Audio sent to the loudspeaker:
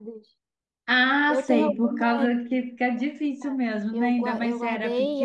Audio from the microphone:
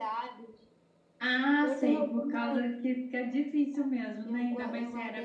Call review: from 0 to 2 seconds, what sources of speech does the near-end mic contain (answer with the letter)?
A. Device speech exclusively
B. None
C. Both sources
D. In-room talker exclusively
A